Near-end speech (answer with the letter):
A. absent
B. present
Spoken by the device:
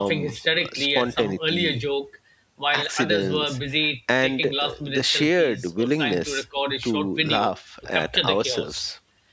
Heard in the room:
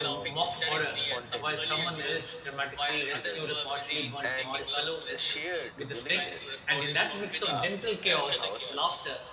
B